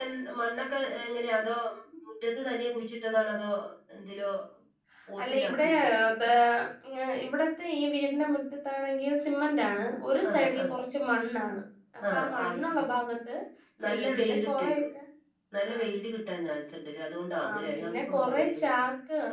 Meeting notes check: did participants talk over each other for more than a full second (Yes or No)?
Yes